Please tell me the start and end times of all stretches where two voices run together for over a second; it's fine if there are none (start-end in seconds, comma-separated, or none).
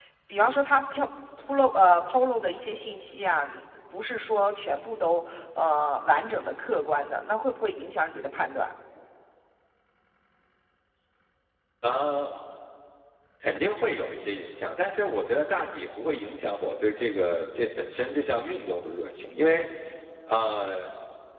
none